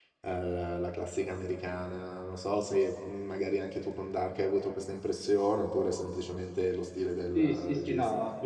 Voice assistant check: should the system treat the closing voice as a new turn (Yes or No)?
Yes